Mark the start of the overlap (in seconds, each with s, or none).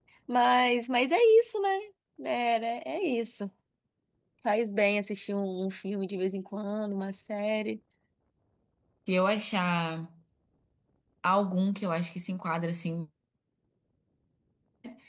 none